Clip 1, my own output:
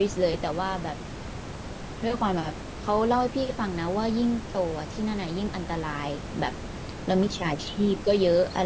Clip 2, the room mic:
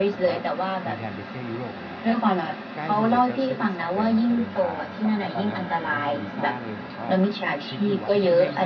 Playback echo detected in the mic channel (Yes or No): Yes